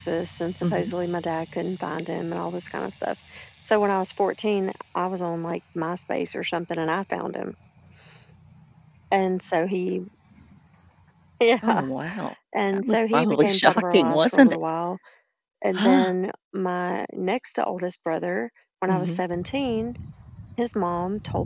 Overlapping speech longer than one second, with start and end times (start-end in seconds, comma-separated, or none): 12.7-14.6